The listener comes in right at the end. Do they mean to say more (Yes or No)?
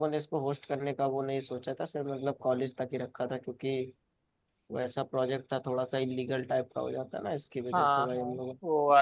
Yes